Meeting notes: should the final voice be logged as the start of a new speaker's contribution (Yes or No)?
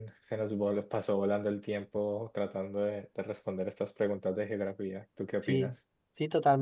Yes